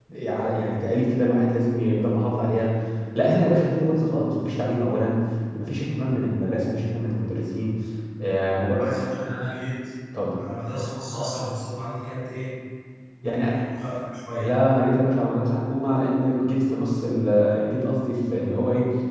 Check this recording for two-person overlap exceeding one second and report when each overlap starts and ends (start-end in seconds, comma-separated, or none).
none